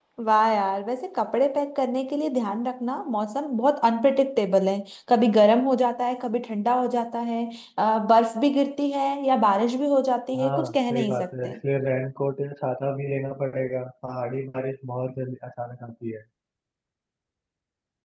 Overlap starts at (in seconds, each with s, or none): 10.3 s